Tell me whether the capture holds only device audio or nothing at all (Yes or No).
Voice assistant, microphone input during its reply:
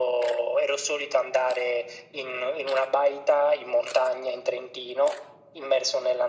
Yes